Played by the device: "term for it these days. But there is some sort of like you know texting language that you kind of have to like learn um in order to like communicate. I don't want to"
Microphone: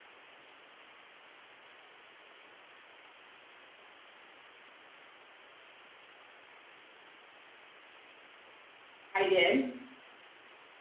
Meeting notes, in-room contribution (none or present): present